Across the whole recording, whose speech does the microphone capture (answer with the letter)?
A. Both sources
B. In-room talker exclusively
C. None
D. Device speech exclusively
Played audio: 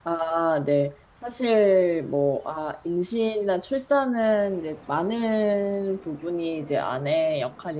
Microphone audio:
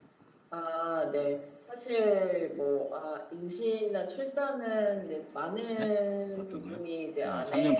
A